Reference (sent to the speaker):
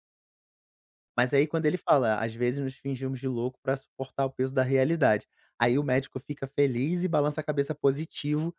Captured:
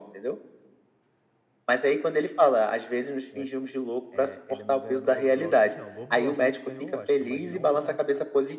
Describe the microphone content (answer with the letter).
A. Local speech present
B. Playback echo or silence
A